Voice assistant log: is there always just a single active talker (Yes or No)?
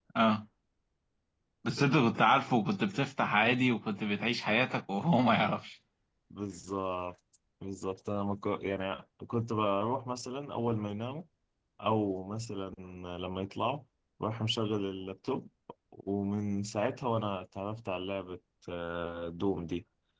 Yes